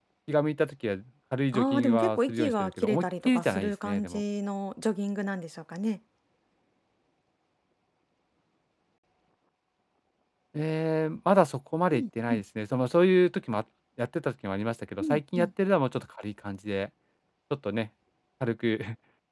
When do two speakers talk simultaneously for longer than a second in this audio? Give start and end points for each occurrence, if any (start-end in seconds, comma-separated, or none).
1.5-4.2